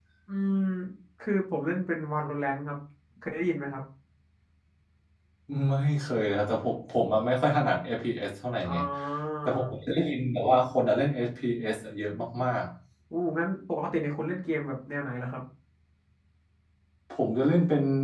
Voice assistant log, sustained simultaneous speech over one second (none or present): none